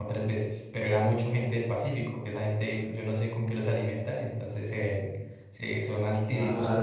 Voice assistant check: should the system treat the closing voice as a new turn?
No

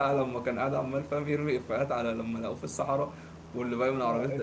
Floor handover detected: Yes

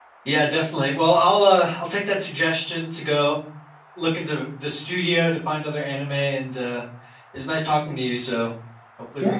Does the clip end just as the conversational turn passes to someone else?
Yes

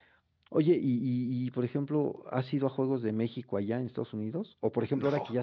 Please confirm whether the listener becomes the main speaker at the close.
No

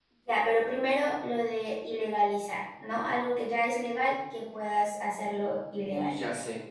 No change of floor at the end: No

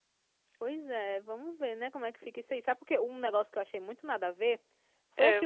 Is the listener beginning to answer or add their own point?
No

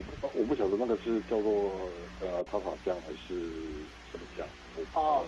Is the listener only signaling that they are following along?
No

